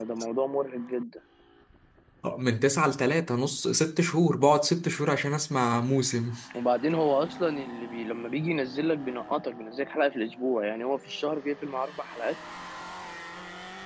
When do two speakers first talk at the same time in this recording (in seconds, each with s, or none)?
none